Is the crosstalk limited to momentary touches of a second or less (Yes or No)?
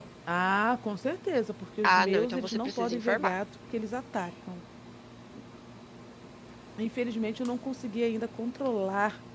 No